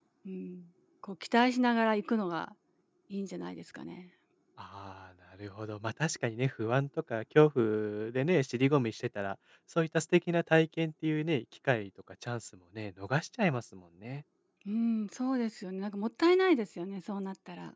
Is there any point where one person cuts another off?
No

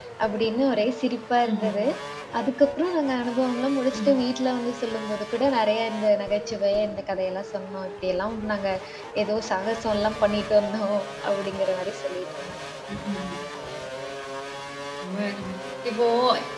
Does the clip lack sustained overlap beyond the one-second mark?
Yes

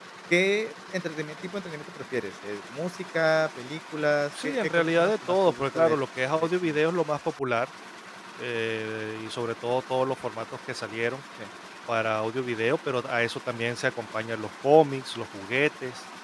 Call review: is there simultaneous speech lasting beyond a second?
Yes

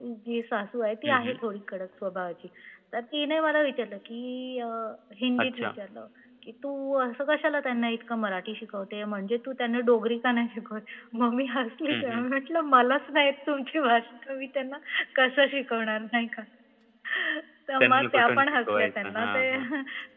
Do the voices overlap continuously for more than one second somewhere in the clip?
Yes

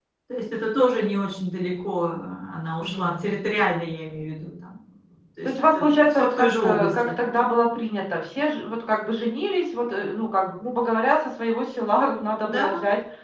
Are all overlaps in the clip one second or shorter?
No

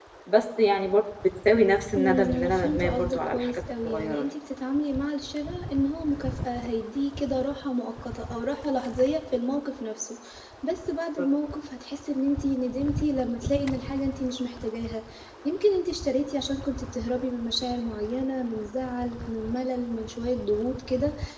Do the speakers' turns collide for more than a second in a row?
Yes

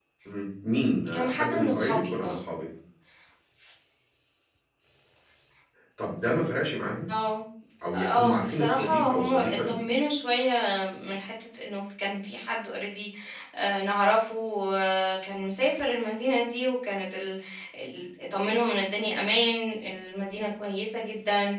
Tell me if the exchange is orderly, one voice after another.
No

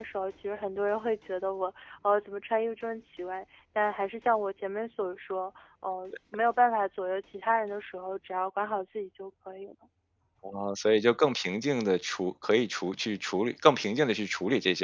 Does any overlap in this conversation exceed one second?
No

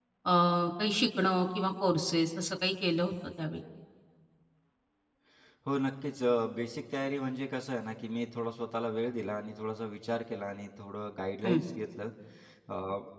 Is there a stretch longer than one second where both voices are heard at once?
No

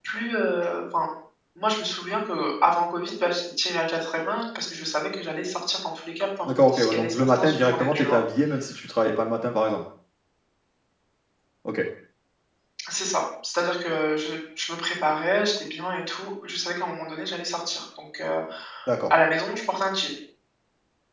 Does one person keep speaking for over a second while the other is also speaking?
Yes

